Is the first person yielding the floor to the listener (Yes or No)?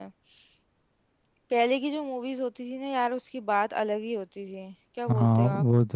Yes